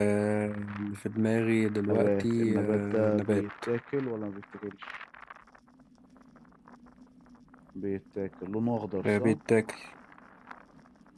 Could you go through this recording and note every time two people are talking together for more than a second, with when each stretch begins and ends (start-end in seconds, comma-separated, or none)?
1.9-3.4